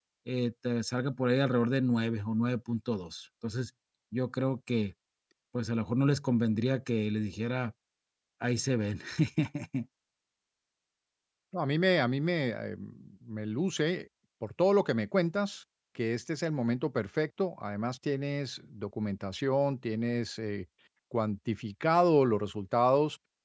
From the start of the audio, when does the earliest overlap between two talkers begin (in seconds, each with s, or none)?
none